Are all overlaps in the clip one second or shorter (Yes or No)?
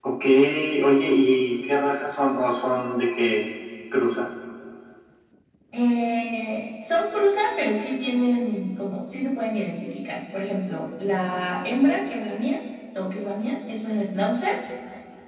Yes